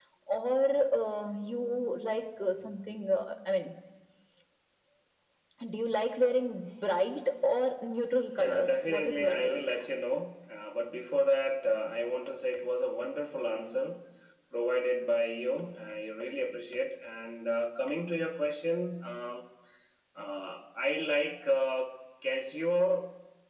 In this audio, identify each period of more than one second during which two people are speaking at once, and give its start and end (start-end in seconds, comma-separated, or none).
8.4-9.6